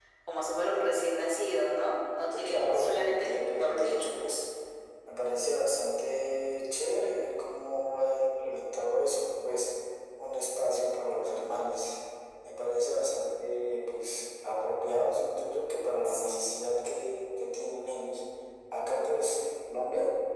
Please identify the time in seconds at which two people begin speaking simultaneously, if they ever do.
2.4 s

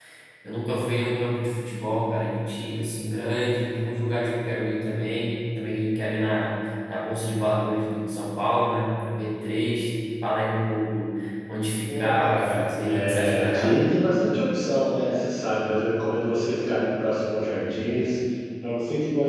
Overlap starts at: 11.9 s

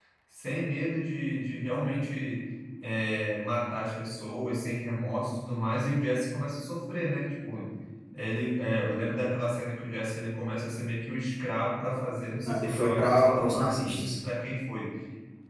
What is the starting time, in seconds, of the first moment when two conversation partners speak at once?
12.4 s

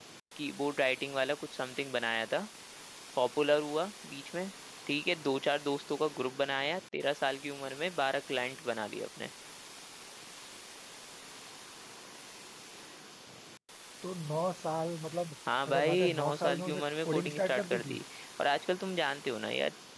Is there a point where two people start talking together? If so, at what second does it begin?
15.7 s

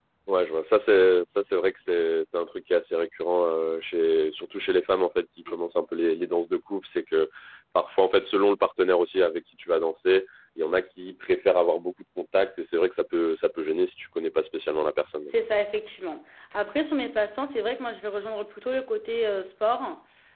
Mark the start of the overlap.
none

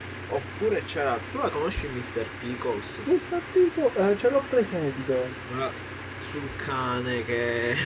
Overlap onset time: none

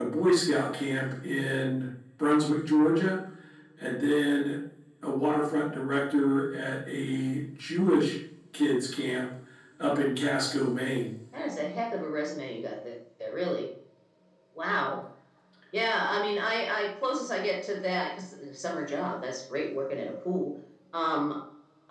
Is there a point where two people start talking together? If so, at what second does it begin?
none

